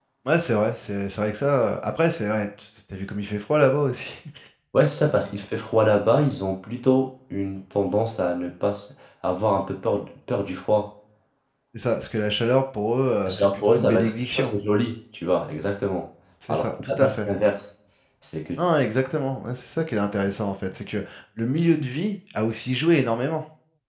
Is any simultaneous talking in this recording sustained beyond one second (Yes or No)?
Yes